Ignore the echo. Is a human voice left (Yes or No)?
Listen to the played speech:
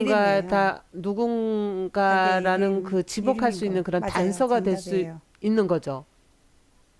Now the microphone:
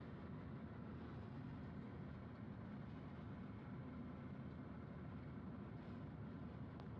No